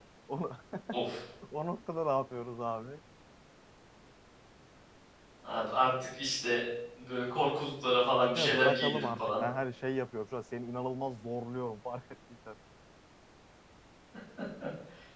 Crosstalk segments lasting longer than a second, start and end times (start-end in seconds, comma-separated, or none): 8.2-9.4